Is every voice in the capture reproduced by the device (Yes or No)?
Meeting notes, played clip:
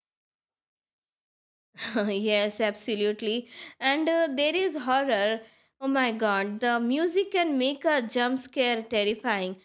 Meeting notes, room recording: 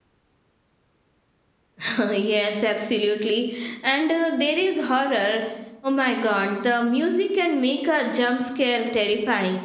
Yes